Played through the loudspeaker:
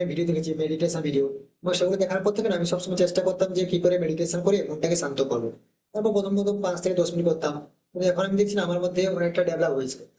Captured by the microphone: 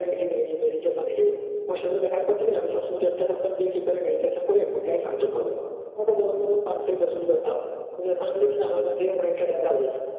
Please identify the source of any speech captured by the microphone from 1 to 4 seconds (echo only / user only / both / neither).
echo only